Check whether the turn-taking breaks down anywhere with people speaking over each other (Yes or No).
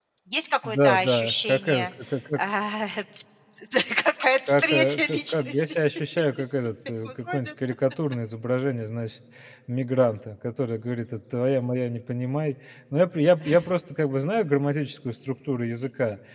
Yes